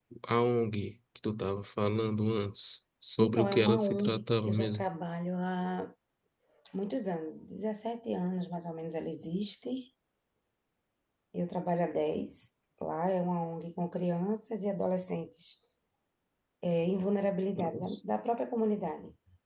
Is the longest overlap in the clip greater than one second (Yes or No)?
Yes